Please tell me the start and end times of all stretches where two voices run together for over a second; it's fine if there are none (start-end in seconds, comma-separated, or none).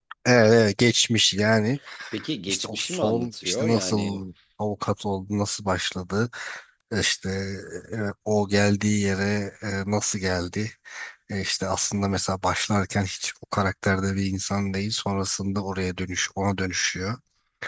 2.5-4.2